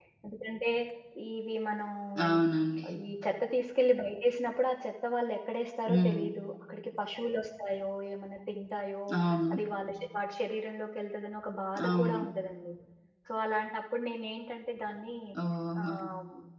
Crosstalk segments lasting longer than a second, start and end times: none

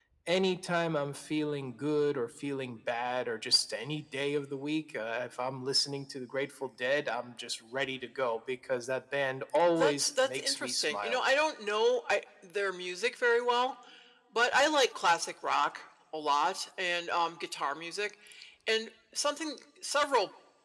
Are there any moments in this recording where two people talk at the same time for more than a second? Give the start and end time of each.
9.8-11.2

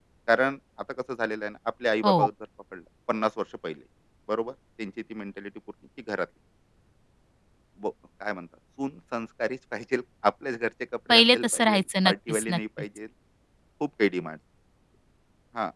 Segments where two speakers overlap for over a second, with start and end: 11.1-12.6

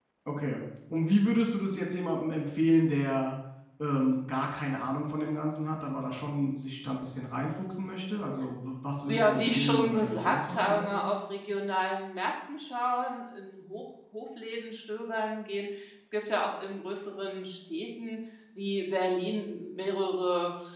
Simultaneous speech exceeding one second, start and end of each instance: 9.1-11.0

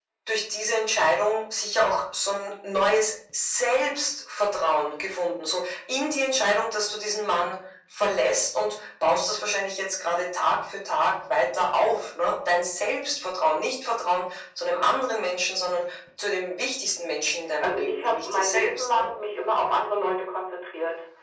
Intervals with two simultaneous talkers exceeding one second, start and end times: 17.6-19.1

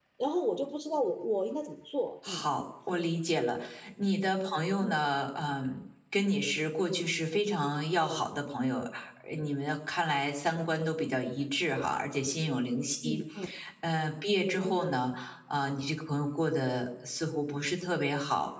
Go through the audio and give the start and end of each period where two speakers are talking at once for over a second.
none

